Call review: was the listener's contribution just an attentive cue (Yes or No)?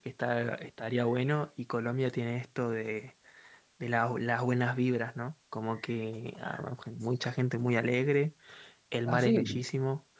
Yes